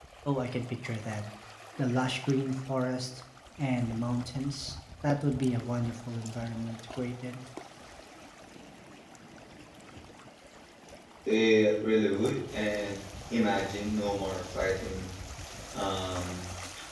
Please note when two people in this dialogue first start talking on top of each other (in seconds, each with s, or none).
none